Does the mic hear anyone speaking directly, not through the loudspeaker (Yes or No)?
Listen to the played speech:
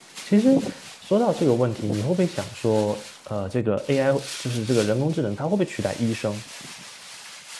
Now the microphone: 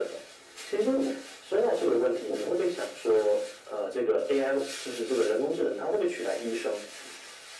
No